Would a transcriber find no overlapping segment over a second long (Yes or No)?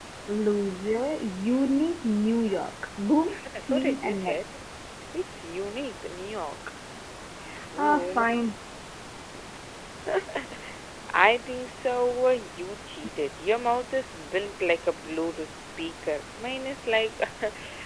No